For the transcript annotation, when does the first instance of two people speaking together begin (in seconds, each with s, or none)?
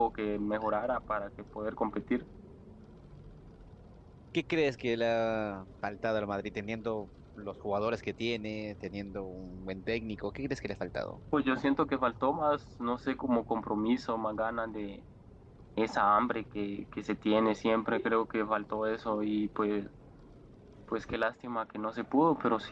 none